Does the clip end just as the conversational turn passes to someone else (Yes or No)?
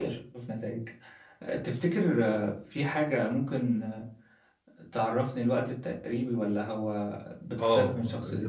Yes